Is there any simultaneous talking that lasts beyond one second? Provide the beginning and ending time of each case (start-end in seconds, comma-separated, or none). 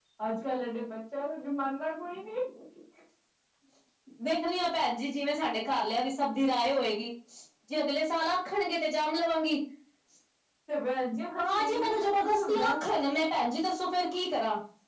11.4-12.7